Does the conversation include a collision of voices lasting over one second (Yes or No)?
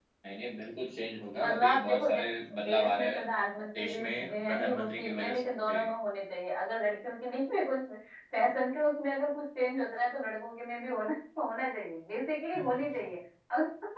Yes